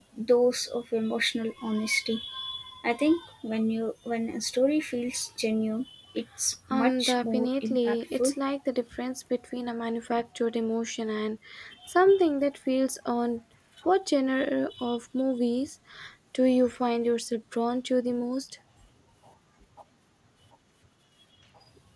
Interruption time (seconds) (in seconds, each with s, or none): 6.7 s